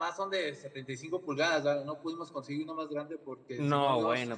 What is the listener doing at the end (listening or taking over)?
taking over